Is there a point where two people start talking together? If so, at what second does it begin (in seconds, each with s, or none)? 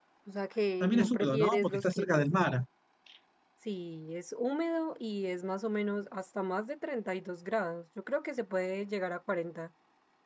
0.8 s